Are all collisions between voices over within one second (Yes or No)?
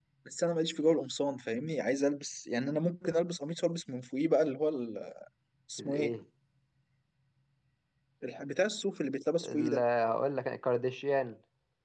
Yes